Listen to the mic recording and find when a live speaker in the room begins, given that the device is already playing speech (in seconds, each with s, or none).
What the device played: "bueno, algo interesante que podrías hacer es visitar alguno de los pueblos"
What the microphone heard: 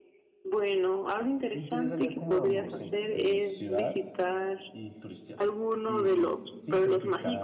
1.5 s